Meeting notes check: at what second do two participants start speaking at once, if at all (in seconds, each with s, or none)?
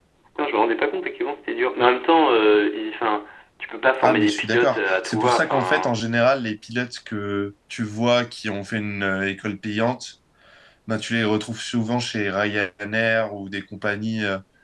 4.0 s